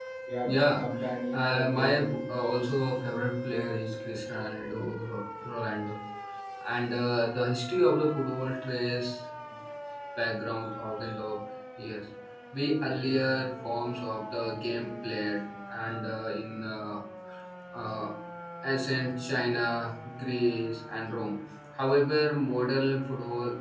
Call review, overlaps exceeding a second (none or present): present